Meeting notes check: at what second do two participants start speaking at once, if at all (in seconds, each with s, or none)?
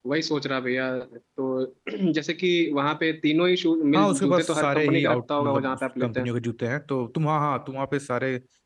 3.9 s